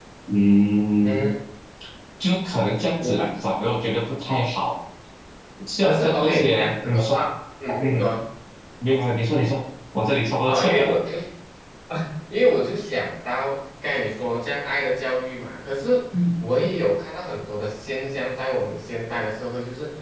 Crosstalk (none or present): present